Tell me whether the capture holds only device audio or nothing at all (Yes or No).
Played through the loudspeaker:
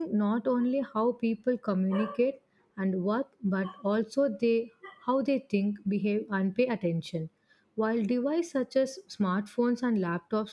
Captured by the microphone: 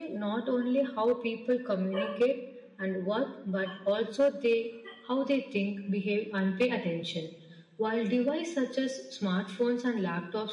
Yes